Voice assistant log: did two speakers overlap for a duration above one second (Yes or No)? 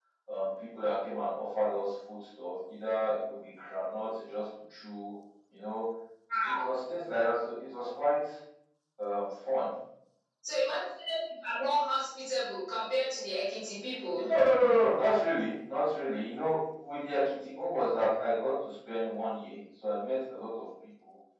No